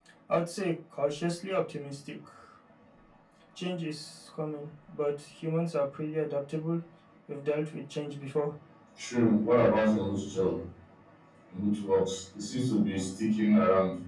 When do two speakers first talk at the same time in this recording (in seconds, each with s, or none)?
none